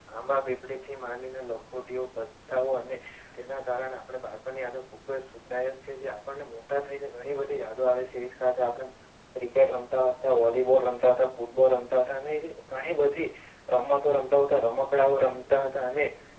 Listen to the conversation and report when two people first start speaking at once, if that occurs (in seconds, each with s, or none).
14.7 s